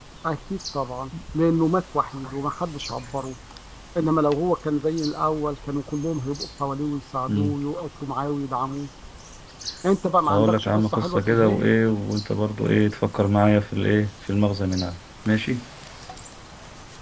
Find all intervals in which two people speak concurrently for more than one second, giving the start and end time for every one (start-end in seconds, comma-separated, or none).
10.3-11.7